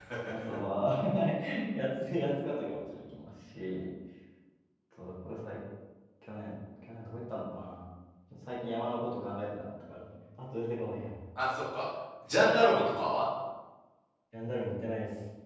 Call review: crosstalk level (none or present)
none